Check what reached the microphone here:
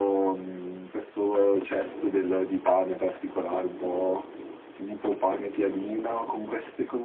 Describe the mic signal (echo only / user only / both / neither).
echo only